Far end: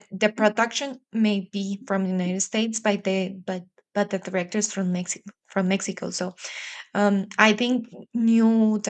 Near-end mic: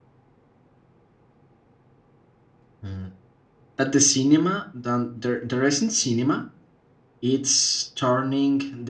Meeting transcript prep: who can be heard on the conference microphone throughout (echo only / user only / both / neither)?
user only